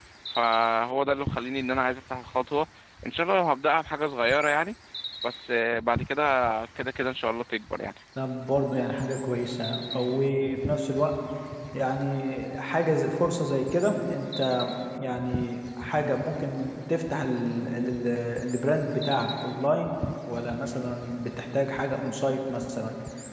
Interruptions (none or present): none